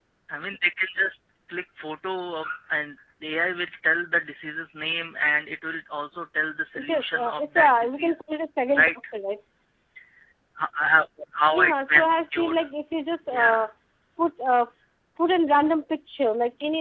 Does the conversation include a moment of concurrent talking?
Yes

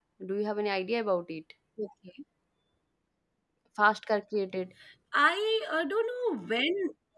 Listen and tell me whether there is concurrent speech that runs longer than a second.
No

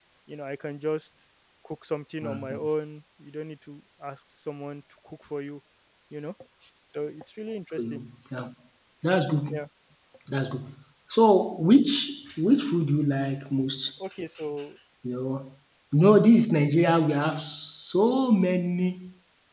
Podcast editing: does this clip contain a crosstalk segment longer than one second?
No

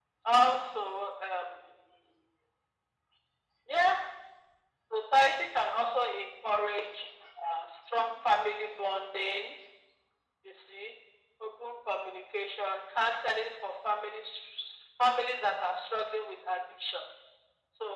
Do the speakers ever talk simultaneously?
No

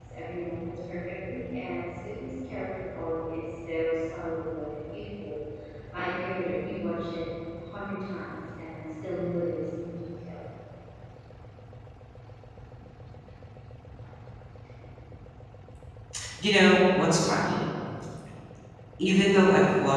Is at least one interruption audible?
No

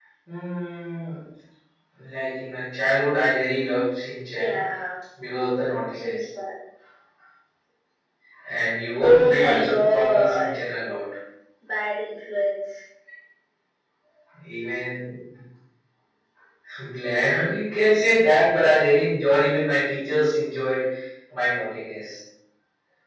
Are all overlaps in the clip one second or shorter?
No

